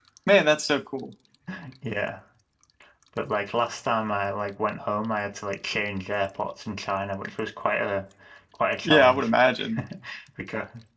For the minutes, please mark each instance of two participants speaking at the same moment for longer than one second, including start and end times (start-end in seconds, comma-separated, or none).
none